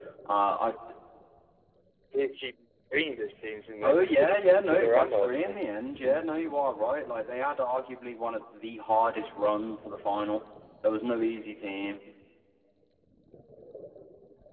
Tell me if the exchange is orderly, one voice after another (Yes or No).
No